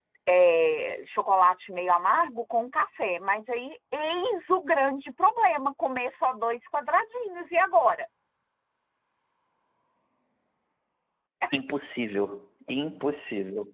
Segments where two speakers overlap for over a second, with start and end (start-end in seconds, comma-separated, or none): none